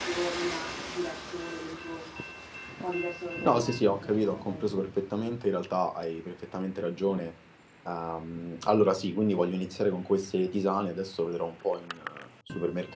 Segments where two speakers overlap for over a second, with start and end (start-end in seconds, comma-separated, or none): 3.4-4.8